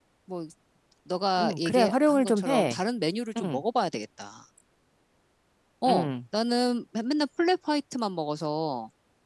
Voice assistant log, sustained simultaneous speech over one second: present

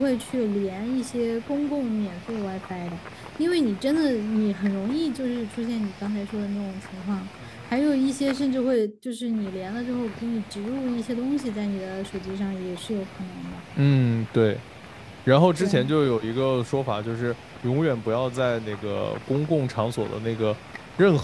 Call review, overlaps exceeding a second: none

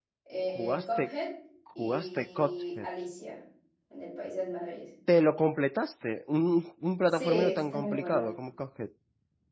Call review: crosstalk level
present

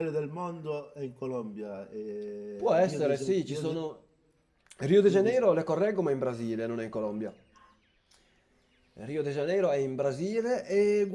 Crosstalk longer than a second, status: present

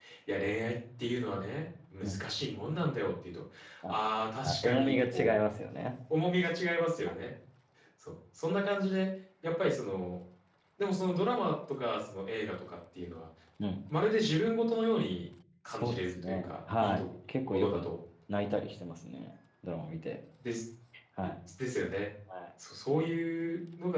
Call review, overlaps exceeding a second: present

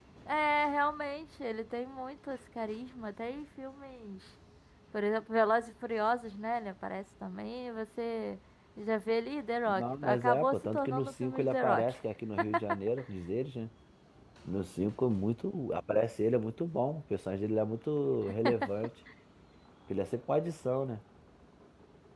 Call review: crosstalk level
present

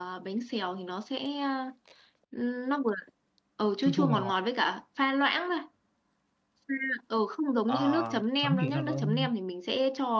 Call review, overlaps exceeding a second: present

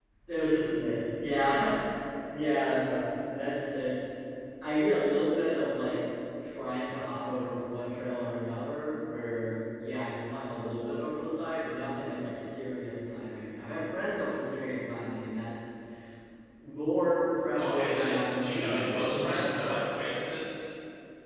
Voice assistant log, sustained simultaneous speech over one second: present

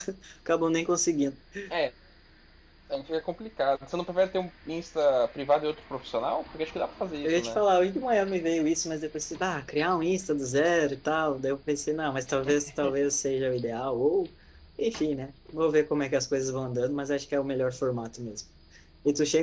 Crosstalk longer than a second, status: none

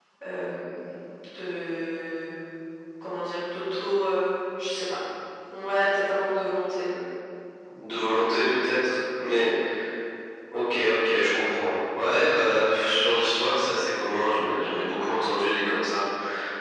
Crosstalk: none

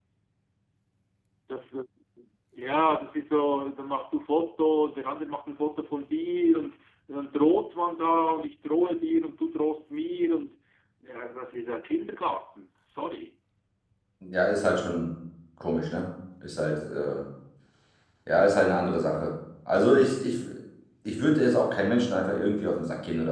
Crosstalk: none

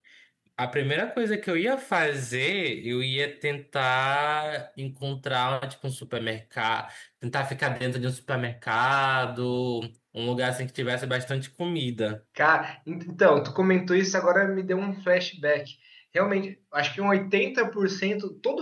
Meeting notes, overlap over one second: none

